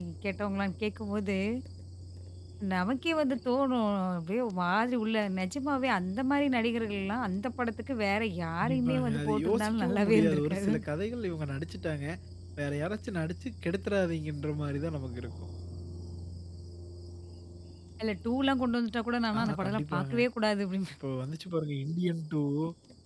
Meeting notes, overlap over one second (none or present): present